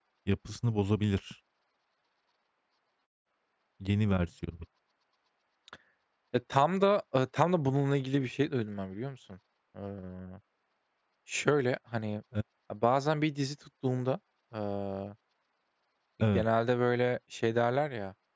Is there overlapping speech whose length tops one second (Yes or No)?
No